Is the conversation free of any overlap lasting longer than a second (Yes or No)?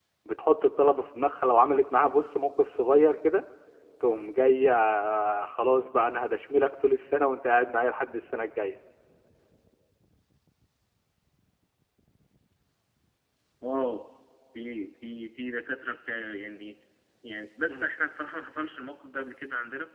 Yes